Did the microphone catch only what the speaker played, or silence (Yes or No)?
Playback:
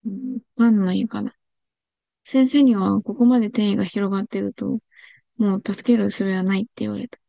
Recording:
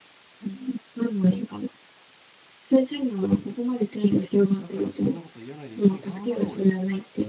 No